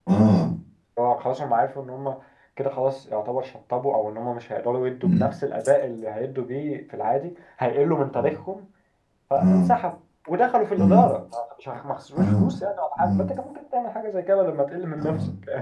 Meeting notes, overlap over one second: none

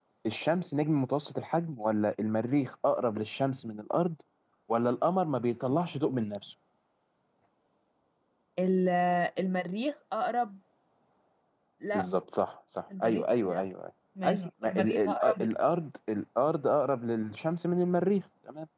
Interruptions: present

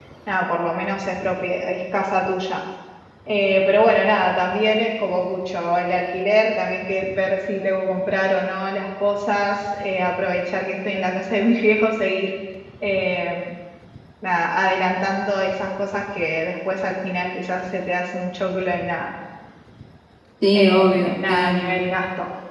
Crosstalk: present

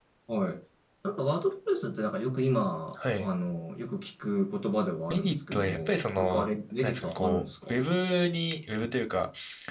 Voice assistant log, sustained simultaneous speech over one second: present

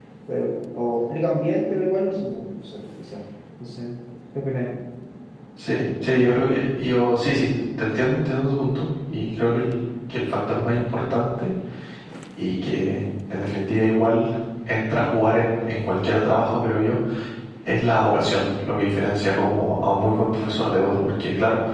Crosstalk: none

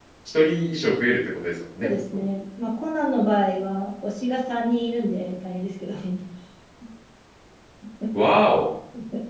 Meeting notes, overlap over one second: none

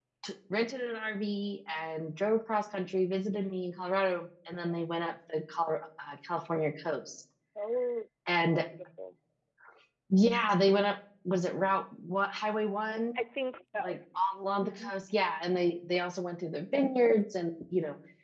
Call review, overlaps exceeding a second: none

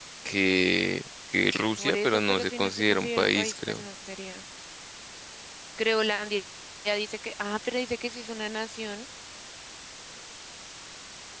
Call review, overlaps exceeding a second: present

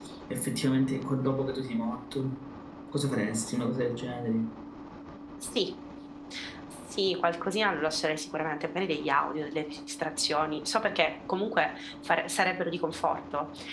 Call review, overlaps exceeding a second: none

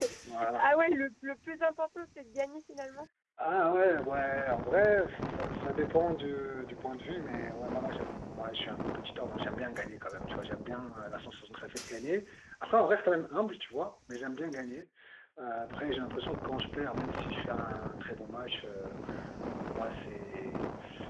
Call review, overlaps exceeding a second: none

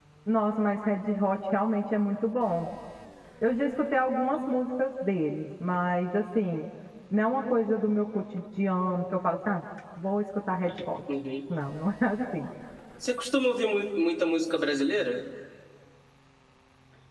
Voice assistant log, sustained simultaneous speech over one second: none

